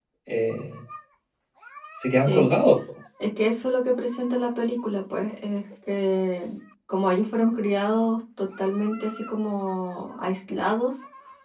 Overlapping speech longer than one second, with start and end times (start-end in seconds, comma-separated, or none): none